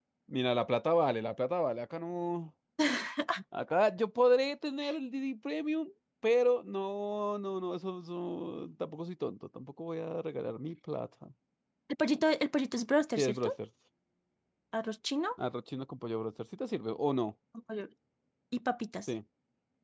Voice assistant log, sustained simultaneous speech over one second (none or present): none